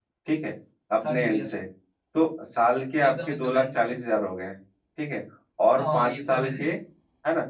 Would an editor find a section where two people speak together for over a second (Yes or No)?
Yes